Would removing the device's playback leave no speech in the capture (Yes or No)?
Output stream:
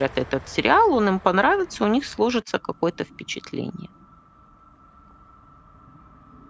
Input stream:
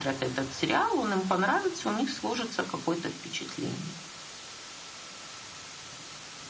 Yes